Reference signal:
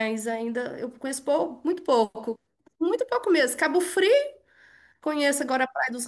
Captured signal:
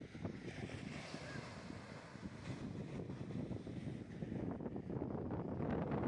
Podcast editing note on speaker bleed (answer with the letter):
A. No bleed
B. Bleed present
A